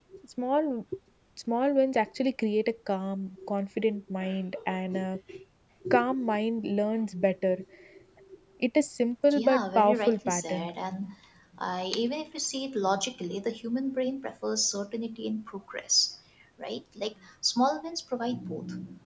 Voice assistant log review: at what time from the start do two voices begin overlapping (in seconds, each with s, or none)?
9.3 s